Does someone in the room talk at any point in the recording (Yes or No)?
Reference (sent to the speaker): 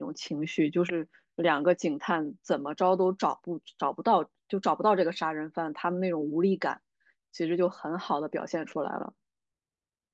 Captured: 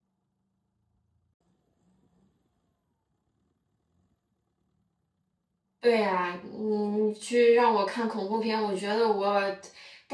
Yes